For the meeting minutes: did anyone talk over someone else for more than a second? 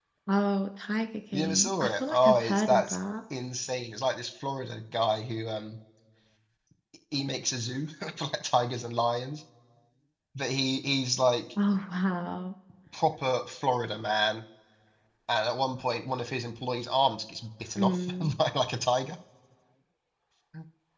Yes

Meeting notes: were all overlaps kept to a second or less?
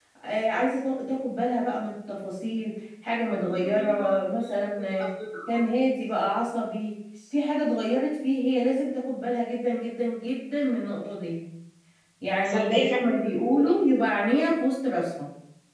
No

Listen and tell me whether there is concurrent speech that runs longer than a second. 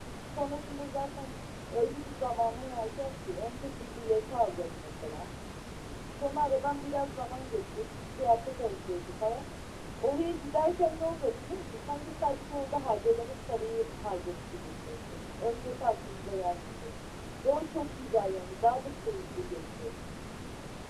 No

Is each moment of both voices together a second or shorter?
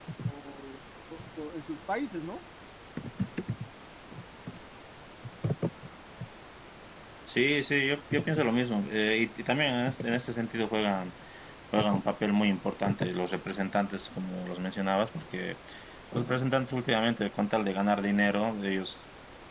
Yes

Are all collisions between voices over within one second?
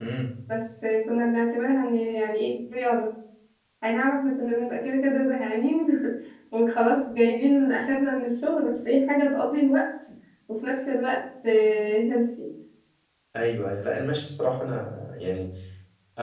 Yes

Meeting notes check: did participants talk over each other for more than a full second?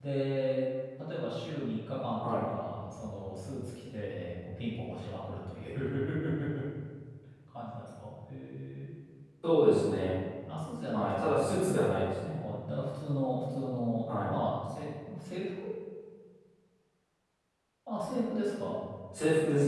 No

